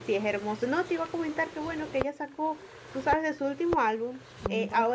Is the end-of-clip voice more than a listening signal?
No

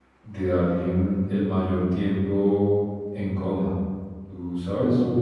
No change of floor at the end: No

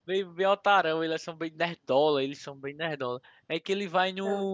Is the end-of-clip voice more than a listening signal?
No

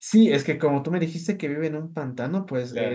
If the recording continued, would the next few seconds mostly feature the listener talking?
No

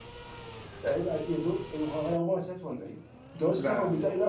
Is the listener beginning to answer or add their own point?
No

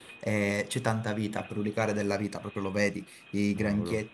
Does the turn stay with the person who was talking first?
Yes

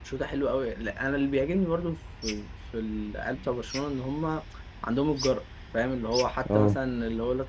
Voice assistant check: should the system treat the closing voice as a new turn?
No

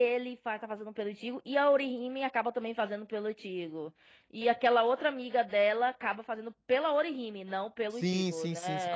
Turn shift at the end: Yes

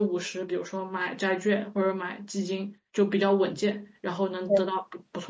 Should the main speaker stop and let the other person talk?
No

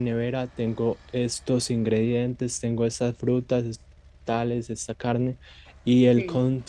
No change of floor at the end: Yes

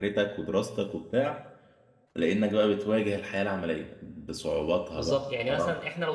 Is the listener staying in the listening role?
No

